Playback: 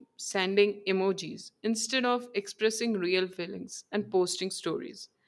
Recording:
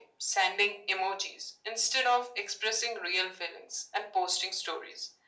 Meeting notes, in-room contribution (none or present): none